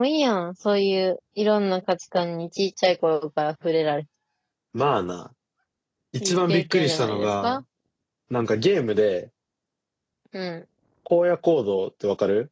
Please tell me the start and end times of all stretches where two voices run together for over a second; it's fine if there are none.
6.2-7.6

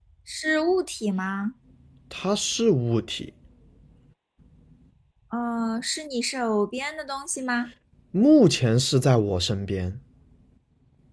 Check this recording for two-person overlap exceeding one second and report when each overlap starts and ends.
none

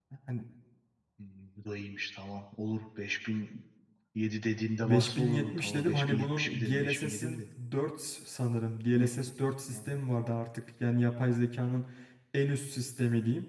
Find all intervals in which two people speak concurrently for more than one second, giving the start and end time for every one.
4.8-7.4

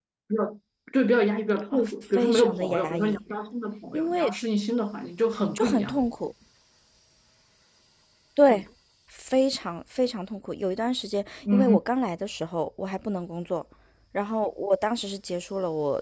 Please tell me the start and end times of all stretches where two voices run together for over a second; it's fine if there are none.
1.7-3.2

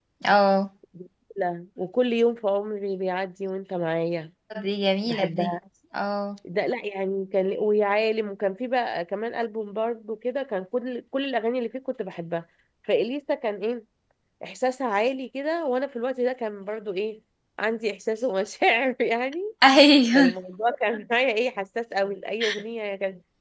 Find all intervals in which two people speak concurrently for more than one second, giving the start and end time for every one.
none

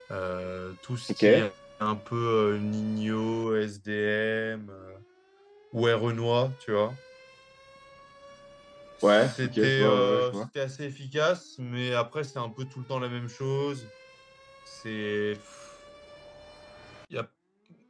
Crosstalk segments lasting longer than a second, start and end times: 9.0-10.4

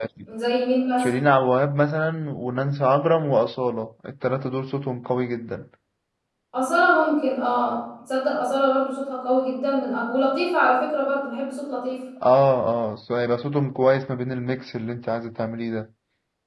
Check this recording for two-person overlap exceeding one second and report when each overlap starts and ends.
none

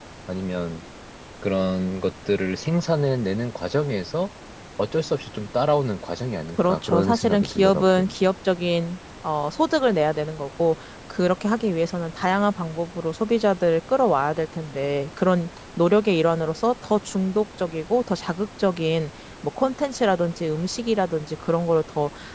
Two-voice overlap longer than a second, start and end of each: 6.6-8.1

